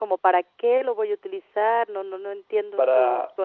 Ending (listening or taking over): listening